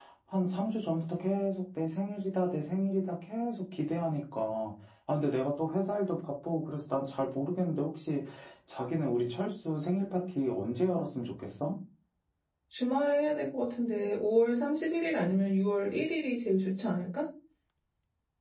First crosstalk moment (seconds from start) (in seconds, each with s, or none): none